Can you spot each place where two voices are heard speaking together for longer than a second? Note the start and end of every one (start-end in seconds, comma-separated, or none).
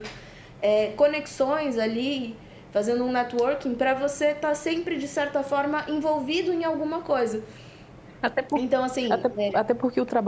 none